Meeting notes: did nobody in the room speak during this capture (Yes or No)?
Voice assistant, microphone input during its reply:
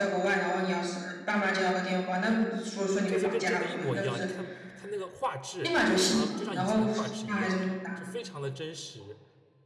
No